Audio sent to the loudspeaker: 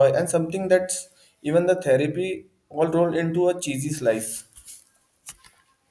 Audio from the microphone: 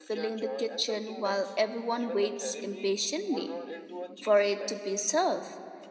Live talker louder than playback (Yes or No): Yes